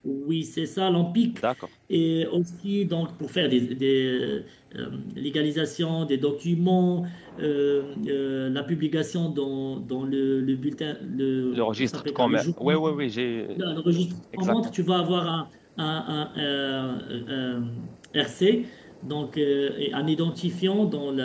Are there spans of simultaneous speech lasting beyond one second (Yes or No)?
Yes